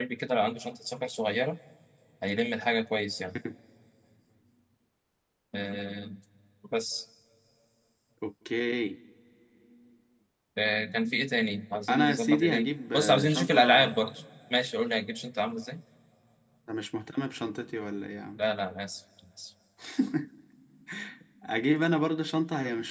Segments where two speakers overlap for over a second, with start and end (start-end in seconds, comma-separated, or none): 11.9-13.9